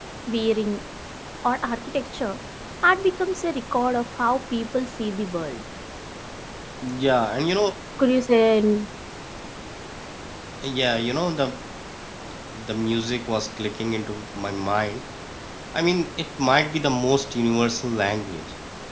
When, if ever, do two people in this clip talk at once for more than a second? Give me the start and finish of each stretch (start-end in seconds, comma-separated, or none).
none